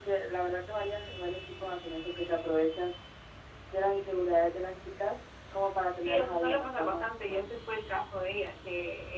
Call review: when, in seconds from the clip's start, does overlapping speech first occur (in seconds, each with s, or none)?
6.0 s